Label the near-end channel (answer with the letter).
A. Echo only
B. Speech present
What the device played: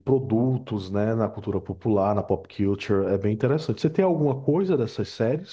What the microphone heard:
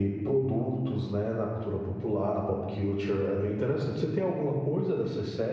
A